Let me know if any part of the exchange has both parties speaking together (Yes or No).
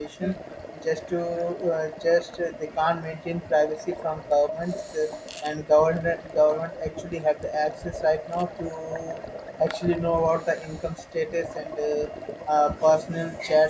No